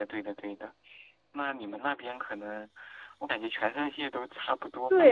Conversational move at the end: taking over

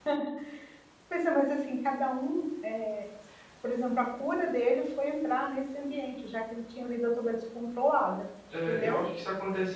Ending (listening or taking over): taking over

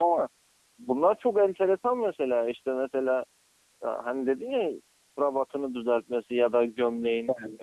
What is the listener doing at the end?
listening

